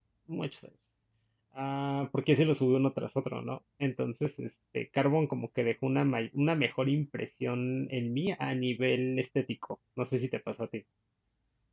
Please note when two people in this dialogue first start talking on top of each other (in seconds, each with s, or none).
none